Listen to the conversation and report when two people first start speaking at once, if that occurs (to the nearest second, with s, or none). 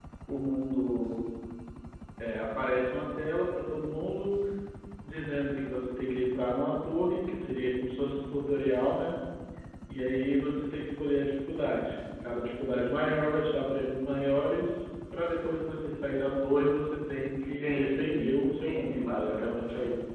17 s